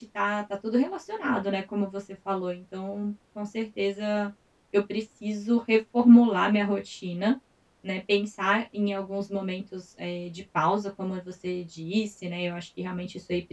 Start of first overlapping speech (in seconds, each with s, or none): none